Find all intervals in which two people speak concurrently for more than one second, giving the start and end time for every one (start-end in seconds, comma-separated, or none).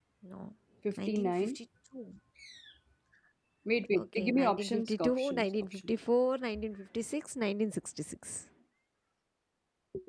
4.0-5.9